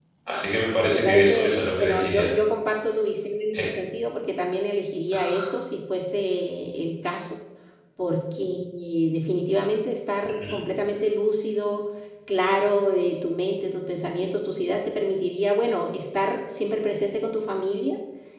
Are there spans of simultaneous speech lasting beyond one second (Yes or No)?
Yes